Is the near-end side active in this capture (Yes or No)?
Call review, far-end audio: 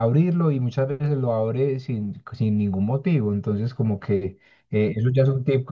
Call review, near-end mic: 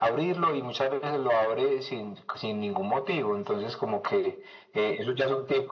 No